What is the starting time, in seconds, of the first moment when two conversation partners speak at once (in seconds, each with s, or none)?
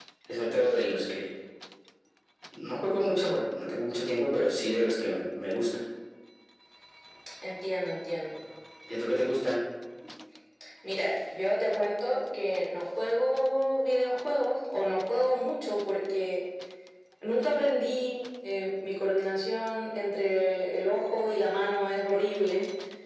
none